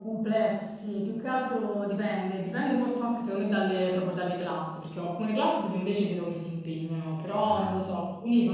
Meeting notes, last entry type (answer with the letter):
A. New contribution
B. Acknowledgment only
B